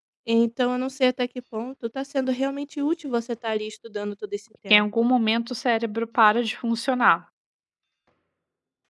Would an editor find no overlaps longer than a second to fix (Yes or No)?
Yes